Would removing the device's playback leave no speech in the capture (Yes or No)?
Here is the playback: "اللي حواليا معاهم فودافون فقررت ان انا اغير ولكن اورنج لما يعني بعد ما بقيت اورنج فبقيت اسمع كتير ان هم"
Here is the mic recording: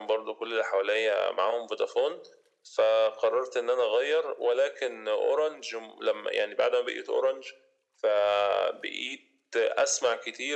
Yes